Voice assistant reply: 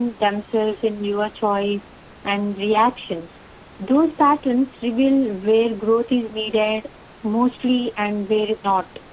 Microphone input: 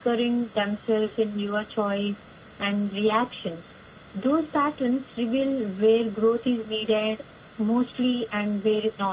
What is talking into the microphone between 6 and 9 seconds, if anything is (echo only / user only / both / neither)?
echo only